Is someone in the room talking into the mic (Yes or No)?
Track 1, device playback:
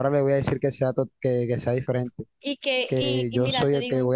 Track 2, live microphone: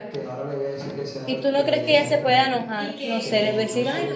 Yes